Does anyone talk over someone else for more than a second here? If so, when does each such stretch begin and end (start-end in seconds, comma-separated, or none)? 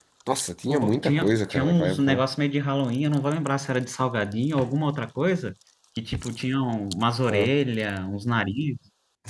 0.7-2.2